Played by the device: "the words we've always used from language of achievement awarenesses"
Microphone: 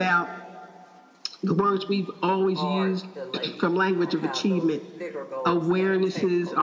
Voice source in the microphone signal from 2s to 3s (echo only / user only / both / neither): both